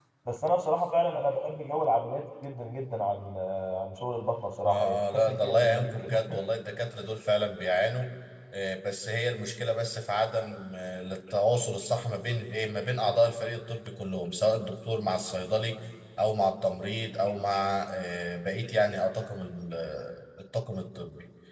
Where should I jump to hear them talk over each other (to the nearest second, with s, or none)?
5 s